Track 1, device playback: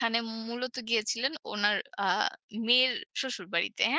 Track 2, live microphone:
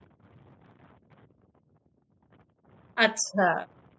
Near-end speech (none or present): present